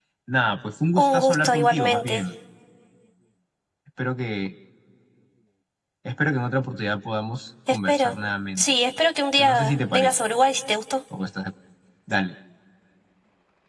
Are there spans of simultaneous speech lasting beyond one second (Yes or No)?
Yes